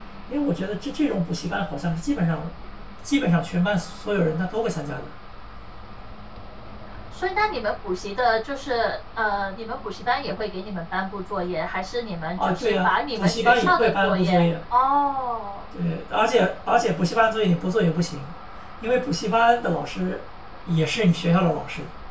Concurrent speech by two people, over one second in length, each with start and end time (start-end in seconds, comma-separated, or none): 12.4-14.5